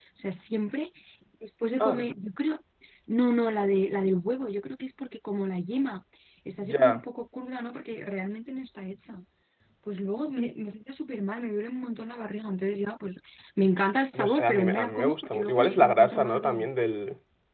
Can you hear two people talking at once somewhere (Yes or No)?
Yes